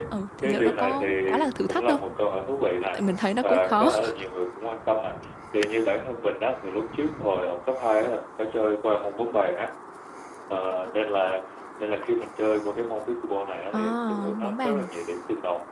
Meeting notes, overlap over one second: present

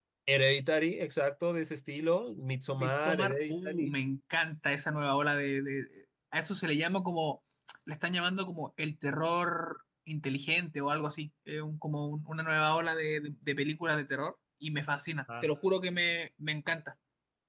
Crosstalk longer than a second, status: present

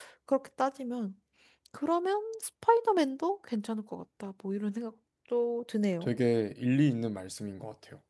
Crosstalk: none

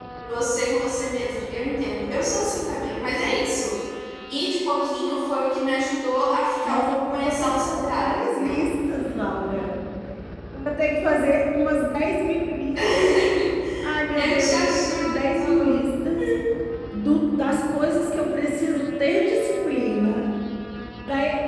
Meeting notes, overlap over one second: present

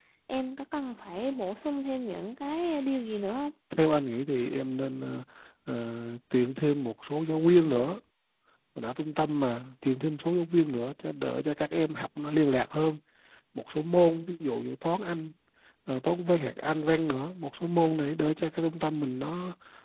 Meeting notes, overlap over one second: none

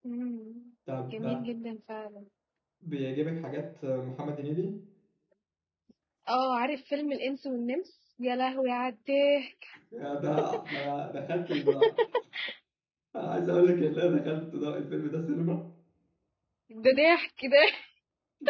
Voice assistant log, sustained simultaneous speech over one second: none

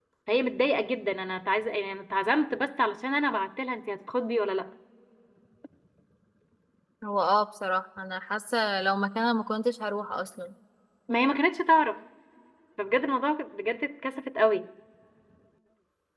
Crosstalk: none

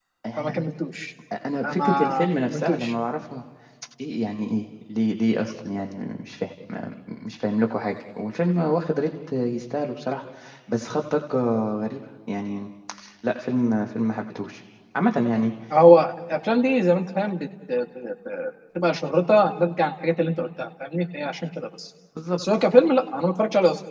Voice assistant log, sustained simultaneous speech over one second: present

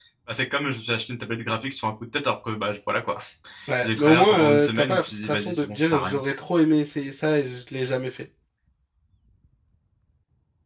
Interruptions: present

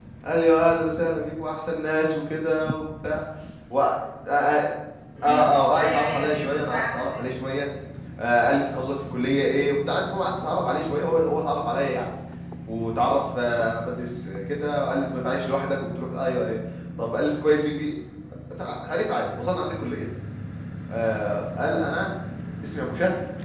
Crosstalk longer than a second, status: present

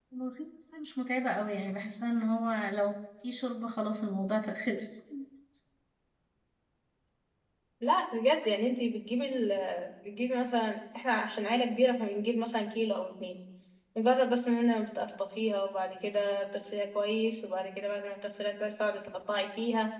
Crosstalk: none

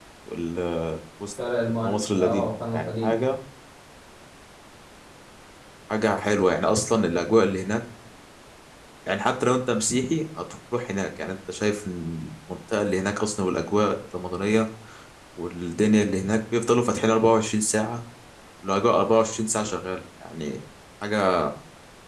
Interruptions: present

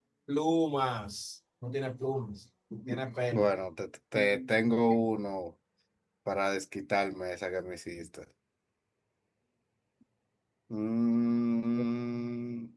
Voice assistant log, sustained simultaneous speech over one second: none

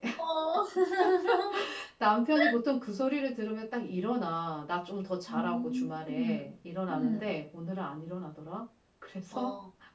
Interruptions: present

